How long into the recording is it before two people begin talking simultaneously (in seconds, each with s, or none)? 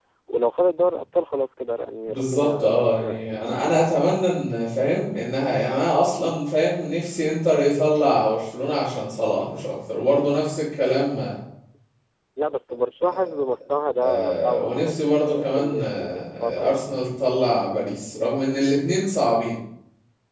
2.1 s